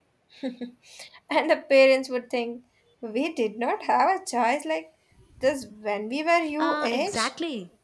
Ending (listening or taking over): taking over